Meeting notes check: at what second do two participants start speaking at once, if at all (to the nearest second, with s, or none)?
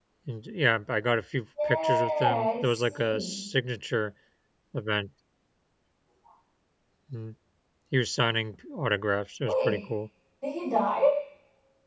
2 s